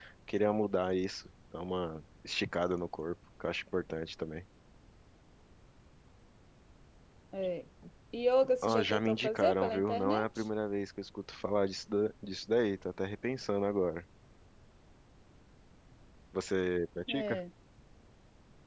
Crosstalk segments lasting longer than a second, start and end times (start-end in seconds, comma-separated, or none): 8.6-10.3